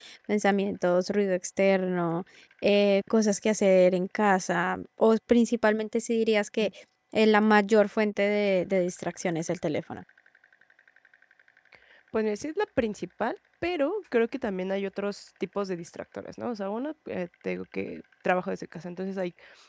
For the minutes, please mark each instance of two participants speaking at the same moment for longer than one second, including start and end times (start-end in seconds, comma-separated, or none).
none